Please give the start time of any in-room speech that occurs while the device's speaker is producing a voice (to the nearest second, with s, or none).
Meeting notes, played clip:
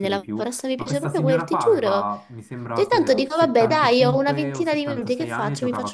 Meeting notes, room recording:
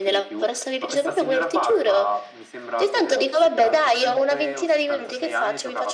none